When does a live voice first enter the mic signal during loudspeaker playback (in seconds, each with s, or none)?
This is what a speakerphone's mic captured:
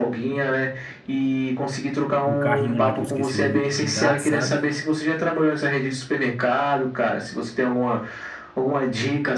2.2 s